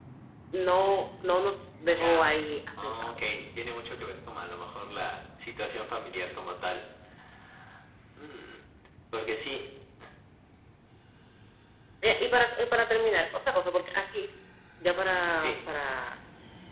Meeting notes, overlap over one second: none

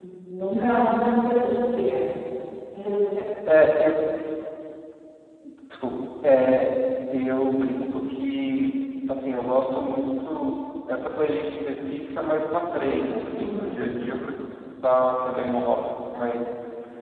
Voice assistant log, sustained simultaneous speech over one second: none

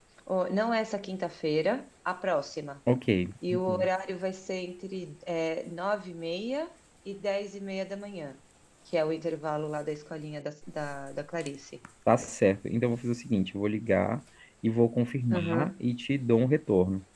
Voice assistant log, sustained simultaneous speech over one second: none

